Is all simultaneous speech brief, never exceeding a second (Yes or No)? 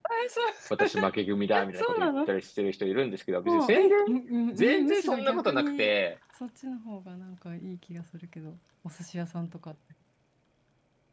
No